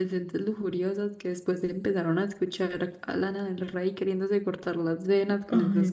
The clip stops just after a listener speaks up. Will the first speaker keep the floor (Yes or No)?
No